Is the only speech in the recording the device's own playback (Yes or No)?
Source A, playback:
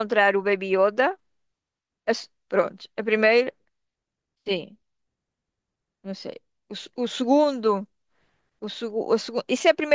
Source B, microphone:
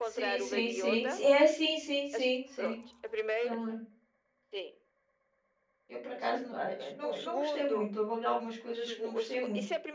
No